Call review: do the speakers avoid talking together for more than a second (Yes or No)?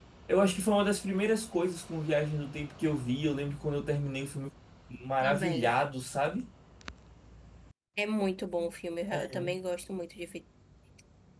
Yes